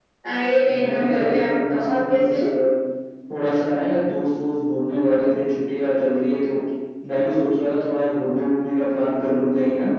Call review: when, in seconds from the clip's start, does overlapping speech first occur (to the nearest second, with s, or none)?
1 s